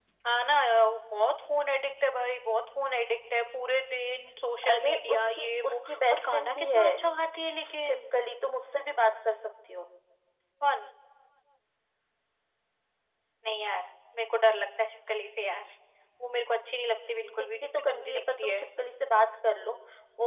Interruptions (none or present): present